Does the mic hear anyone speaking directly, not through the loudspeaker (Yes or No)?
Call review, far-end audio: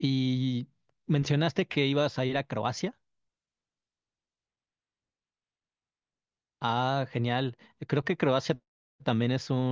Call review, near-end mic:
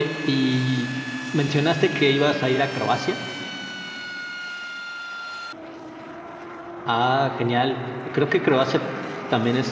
No